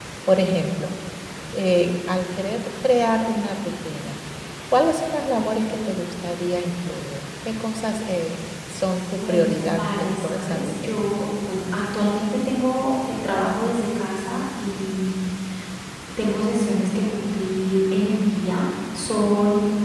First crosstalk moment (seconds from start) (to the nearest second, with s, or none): 9 s